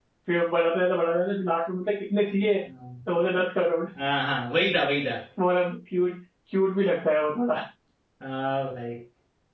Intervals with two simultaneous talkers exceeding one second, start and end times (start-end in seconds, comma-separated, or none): none